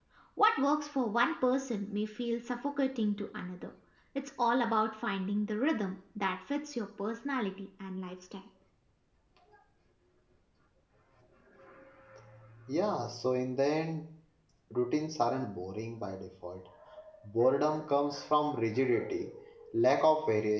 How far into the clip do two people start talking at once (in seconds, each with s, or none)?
none